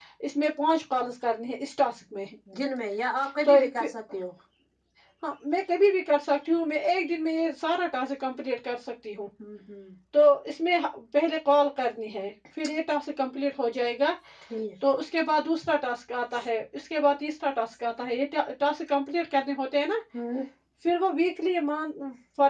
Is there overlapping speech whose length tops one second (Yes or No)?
No